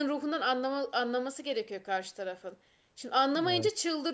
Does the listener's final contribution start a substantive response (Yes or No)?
No